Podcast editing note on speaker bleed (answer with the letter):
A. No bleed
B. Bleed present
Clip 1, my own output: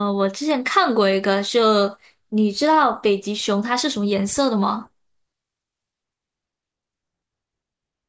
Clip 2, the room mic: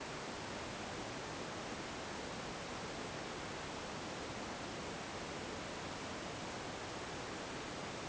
A